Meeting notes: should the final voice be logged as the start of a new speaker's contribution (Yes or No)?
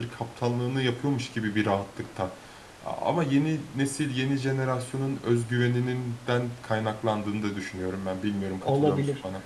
Yes